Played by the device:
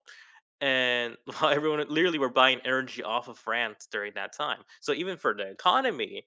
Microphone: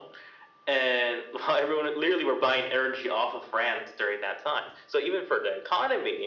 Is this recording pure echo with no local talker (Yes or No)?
Yes